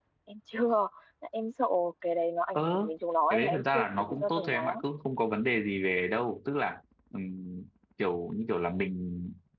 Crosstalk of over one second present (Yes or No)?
Yes